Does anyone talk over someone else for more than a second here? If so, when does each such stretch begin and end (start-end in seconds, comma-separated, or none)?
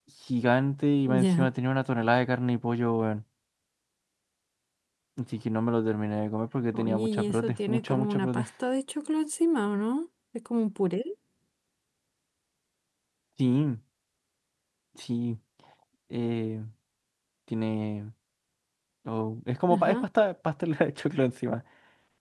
6.7-8.4